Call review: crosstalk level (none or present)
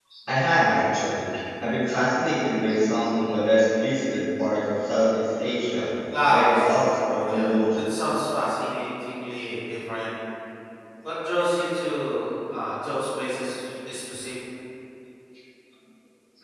present